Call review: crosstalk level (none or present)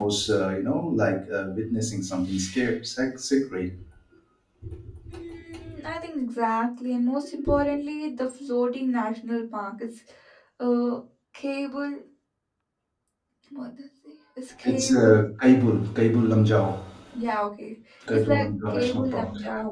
present